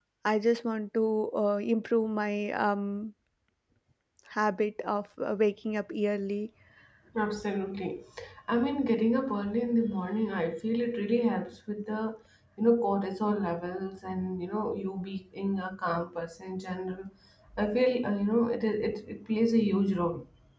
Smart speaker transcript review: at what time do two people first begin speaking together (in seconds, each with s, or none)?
none